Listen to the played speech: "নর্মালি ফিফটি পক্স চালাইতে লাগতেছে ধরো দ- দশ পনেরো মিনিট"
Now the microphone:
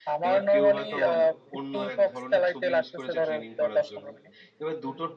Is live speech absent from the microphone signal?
No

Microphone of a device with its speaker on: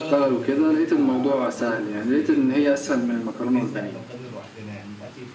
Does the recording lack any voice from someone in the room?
No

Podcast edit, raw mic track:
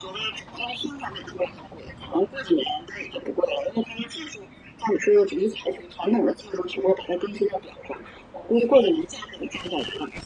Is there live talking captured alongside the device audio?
No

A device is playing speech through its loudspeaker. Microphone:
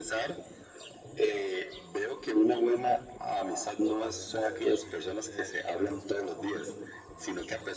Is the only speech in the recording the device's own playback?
No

